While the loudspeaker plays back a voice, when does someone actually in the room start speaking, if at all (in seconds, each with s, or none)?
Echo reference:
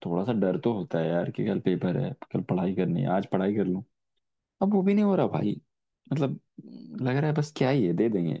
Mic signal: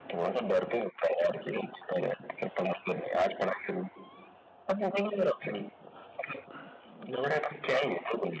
none